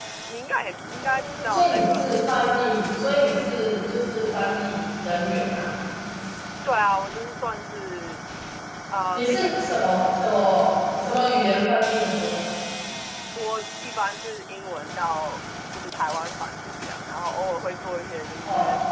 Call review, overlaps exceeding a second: present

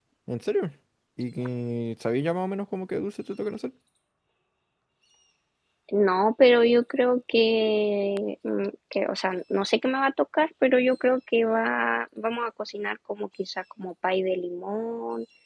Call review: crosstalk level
none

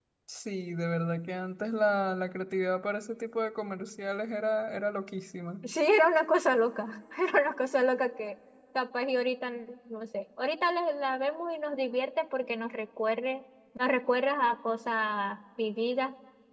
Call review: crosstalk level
none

